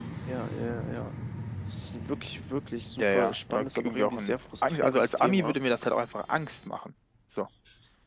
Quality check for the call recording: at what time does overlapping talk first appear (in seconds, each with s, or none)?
3.0 s